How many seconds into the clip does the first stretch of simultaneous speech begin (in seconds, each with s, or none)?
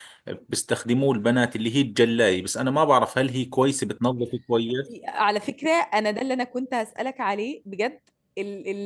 none